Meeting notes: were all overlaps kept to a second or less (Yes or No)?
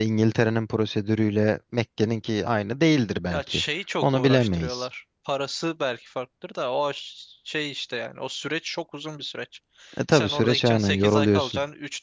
No